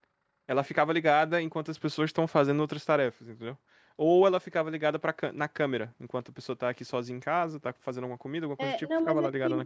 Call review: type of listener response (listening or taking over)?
taking over